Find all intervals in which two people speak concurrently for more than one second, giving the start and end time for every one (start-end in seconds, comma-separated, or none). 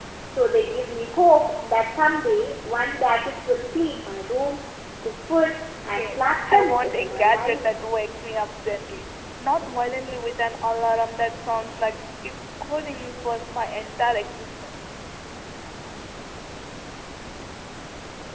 5.8-7.6